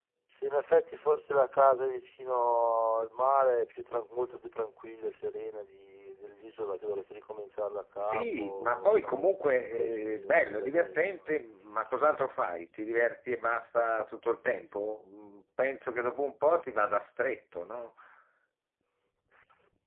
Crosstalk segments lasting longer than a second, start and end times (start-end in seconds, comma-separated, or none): 8.0-11.3